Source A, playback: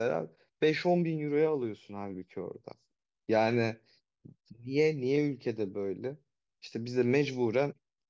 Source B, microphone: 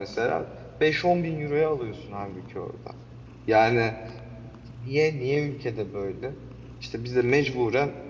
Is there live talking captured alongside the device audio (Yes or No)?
No